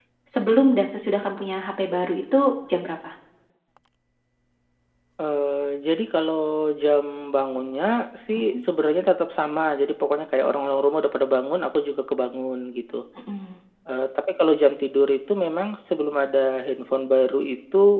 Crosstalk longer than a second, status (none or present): none